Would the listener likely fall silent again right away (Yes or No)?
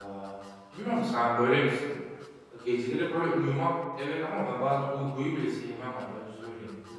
No